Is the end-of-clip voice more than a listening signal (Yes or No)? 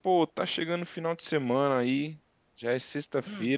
No